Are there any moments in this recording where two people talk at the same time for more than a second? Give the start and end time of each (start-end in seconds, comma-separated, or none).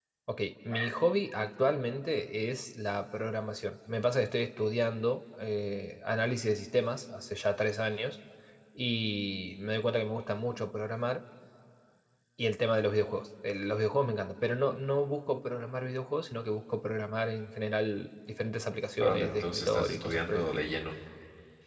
19.0-20.6